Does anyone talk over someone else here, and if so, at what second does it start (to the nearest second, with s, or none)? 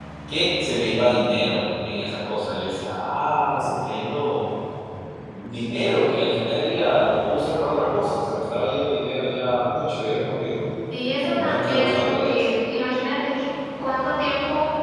11 s